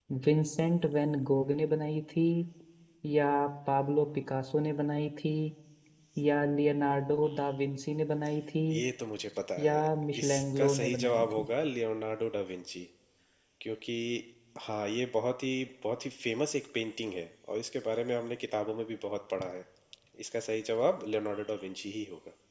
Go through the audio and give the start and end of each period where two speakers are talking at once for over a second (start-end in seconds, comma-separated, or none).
10.2-11.4